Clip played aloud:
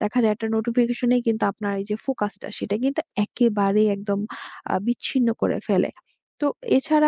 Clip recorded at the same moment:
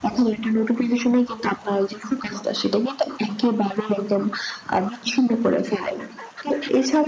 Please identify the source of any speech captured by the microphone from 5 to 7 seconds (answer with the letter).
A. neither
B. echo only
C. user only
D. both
B